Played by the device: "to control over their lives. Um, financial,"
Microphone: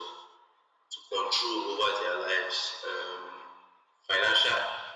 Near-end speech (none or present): none